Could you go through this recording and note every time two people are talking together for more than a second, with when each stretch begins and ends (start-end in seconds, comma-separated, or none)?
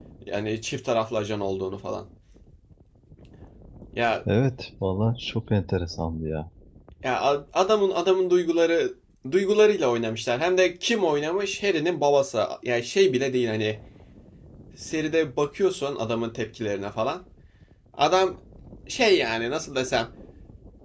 none